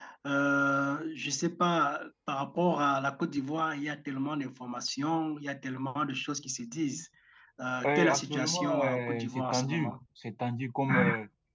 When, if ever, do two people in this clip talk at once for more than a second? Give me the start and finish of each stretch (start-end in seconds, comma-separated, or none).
7.9-10.0